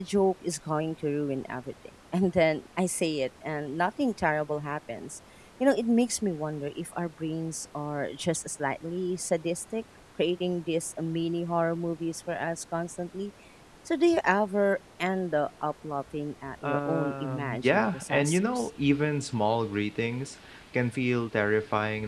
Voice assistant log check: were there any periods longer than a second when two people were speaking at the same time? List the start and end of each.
16.6-18.7

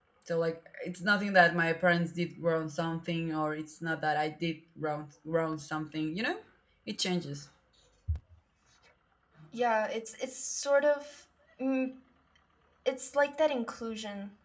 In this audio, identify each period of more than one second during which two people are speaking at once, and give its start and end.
none

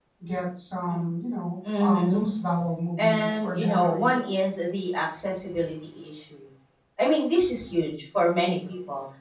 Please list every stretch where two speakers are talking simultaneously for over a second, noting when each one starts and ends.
3.0-4.2

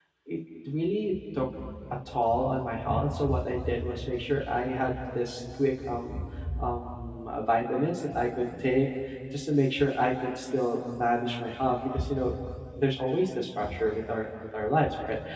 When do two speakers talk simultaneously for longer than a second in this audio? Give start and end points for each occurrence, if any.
none

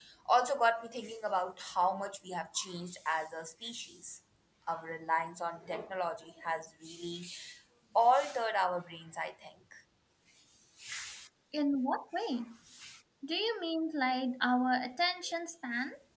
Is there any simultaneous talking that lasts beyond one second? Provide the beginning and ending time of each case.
none

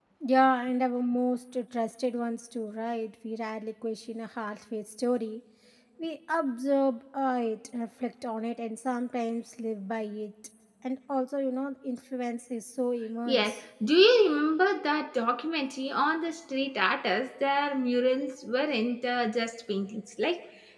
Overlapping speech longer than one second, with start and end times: none

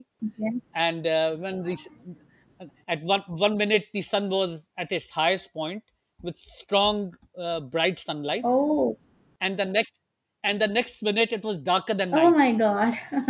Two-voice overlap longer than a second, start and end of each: none

